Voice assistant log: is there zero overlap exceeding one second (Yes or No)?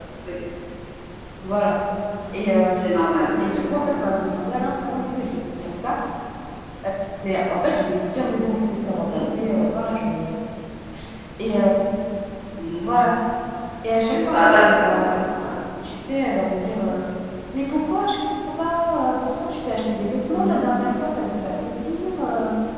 No